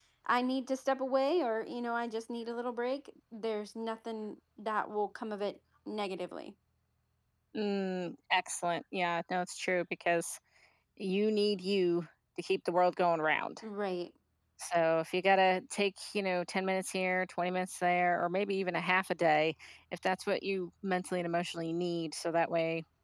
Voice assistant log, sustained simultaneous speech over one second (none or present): none